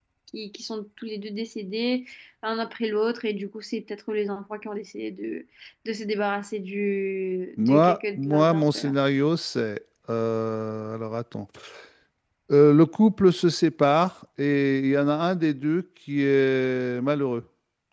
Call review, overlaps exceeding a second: present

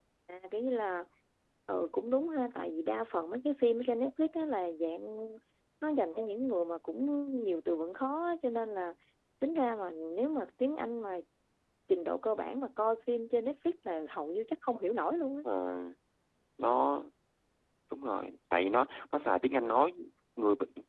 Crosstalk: none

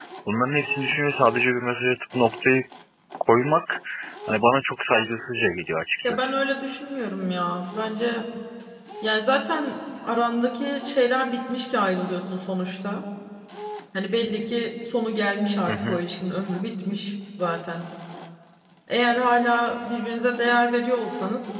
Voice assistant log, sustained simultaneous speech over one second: none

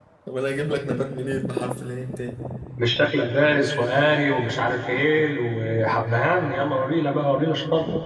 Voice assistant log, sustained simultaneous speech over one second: none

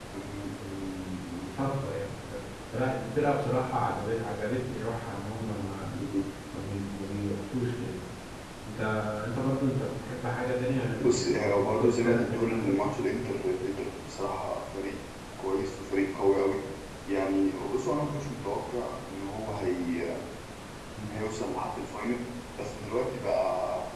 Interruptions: present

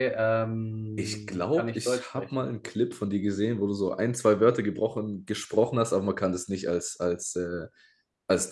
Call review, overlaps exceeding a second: present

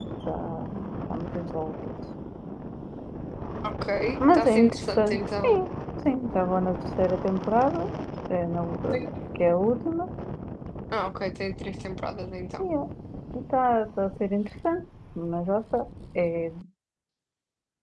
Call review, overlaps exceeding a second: present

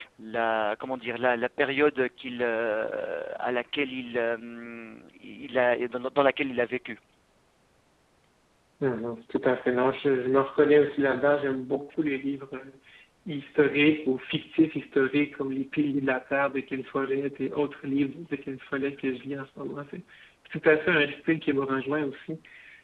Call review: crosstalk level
none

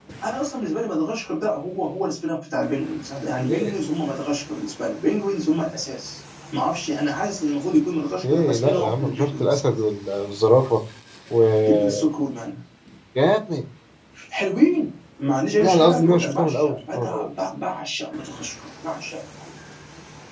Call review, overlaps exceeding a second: present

